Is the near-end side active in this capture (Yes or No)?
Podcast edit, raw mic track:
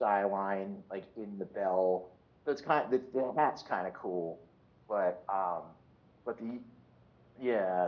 Yes